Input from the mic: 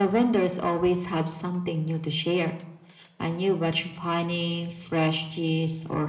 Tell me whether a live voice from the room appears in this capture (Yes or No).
No